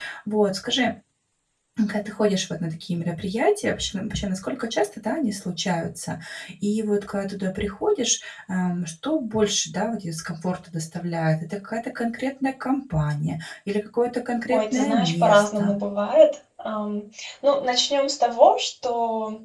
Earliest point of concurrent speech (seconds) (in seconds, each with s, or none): 14.5 s